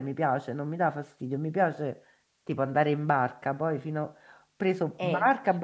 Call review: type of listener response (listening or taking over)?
listening